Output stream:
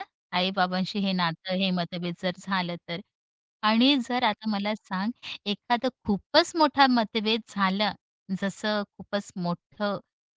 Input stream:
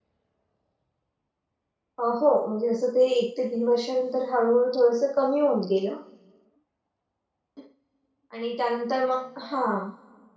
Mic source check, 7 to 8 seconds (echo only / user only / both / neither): neither